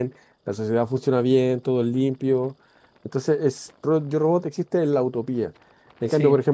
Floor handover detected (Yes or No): No